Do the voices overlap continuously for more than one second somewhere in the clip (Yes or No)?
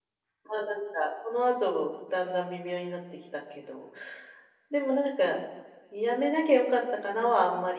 No